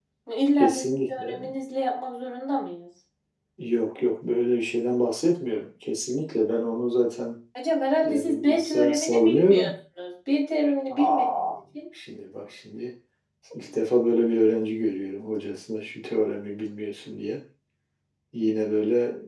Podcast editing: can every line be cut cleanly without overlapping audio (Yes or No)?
No